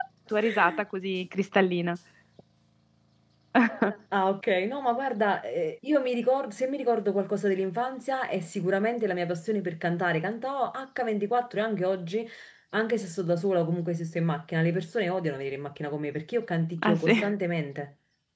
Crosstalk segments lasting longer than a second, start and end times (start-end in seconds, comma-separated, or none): none